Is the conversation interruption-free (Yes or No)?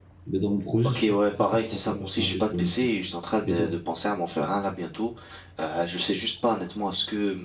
No